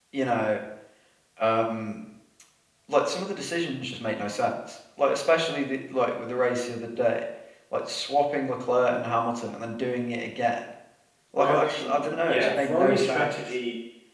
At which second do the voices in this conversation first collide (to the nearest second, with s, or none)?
11 s